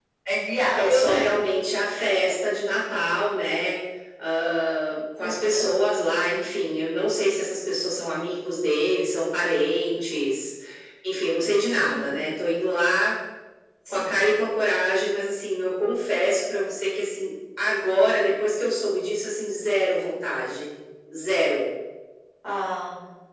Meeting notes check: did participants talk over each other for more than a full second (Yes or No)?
No